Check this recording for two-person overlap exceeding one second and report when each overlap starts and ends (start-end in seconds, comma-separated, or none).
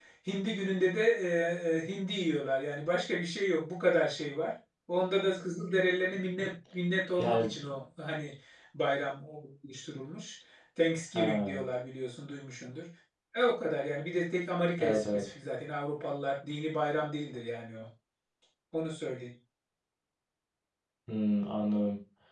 none